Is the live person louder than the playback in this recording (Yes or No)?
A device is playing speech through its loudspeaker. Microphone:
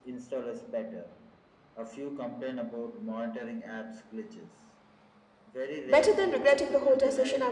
Yes